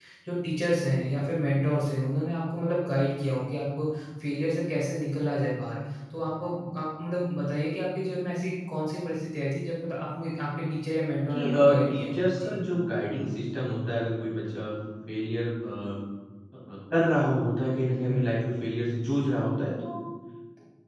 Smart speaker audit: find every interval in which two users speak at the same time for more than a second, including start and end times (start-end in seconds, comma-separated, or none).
11.3-12.6